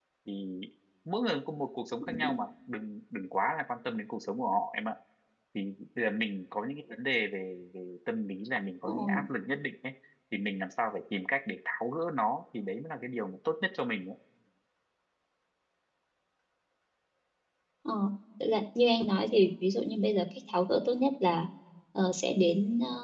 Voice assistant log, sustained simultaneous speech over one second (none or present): none